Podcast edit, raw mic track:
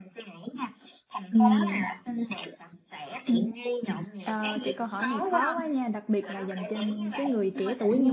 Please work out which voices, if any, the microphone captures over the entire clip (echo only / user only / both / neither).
both